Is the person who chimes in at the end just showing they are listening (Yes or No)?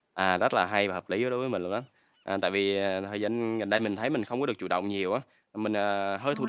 Yes